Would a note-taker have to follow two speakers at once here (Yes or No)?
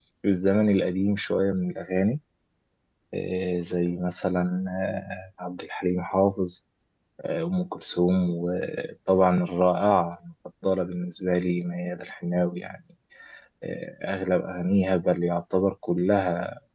No